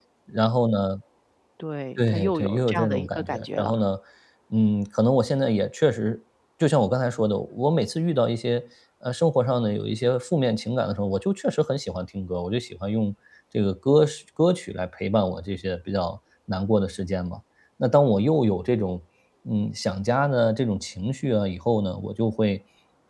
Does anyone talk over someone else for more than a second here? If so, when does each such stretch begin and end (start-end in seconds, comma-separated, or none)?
2.0-3.7